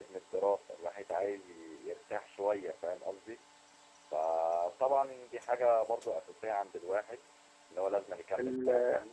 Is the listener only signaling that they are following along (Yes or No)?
No